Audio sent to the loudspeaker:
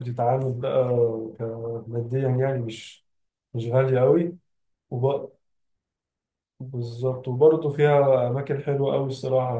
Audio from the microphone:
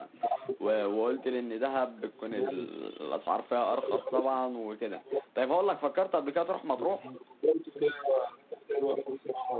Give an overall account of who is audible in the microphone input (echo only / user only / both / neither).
both